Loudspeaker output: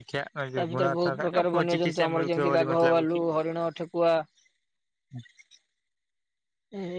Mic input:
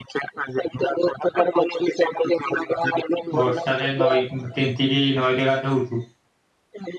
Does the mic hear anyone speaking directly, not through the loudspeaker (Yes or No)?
Yes